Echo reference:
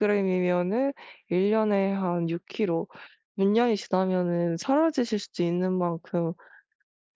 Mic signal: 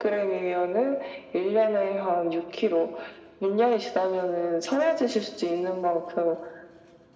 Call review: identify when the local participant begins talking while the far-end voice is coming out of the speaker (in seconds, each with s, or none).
none